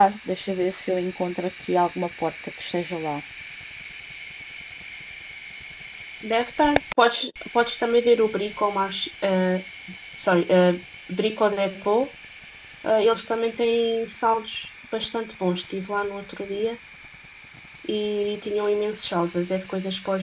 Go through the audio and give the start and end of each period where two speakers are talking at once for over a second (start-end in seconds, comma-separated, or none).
none